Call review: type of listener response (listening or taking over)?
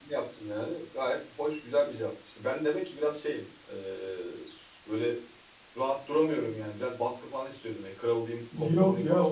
taking over